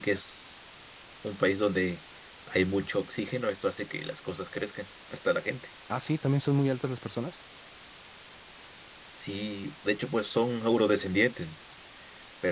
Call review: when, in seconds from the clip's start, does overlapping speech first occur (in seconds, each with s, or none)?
none